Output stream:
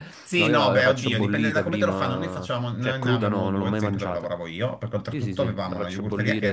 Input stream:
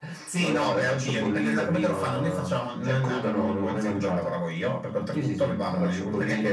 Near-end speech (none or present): none